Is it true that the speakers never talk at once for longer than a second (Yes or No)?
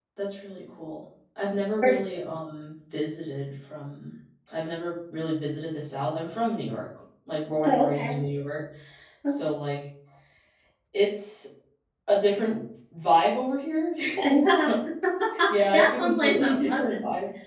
No